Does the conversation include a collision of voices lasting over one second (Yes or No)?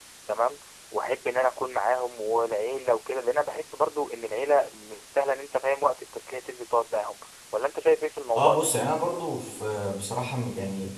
No